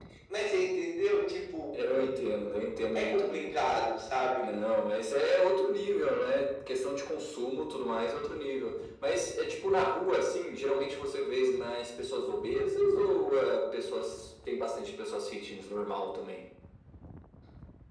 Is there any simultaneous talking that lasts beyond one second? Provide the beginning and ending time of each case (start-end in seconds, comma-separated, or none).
none